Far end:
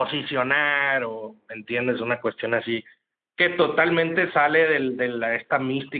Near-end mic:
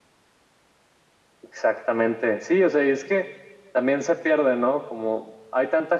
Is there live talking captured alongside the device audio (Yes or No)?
Yes